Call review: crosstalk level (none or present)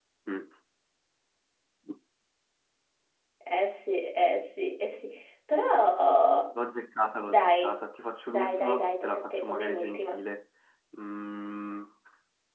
present